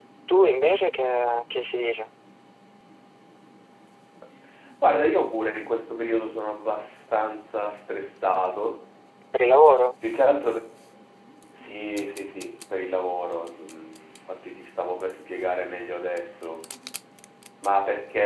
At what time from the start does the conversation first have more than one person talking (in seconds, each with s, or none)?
none